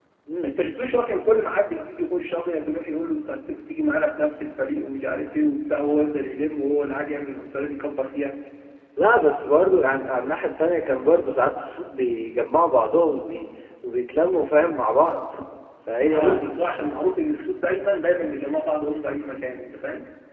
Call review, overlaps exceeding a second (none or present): none